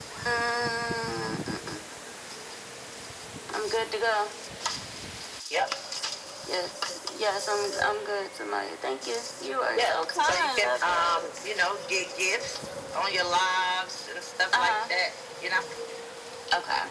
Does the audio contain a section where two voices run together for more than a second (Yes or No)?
Yes